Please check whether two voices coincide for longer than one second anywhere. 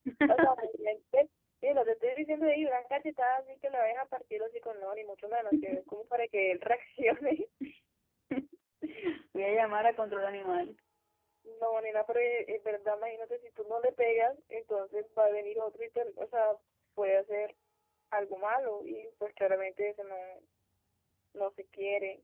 No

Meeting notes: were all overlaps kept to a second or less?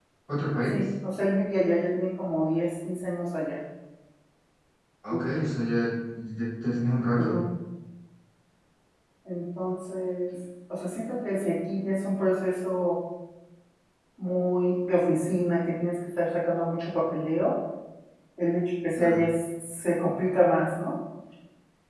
Yes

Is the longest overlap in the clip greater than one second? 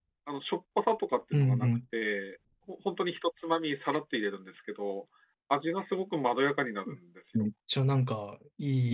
No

